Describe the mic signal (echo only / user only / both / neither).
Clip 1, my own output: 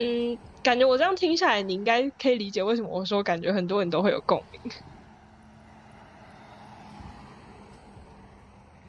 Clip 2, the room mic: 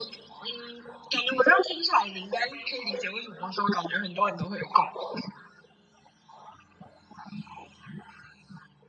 echo only